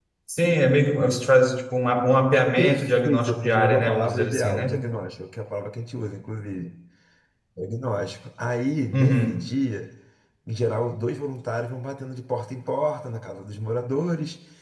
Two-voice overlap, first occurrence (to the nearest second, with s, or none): 3 s